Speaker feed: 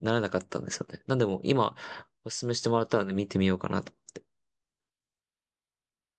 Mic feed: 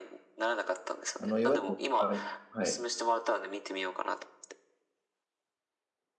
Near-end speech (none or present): present